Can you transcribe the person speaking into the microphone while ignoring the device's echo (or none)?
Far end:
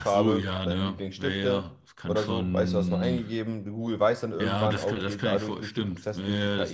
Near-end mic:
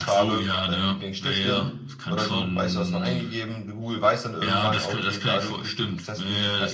Stimmt. Mhm.